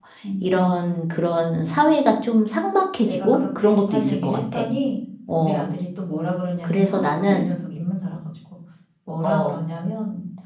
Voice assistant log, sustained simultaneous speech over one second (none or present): present